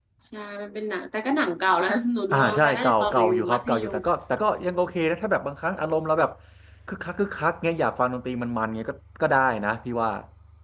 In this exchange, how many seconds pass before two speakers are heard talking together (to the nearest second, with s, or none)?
2 s